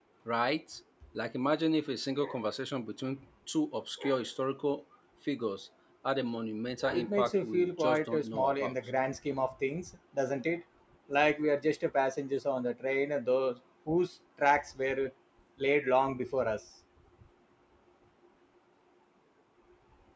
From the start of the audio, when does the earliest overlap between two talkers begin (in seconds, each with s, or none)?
6.9 s